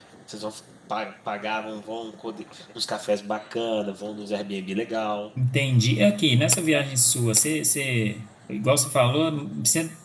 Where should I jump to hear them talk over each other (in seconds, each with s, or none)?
none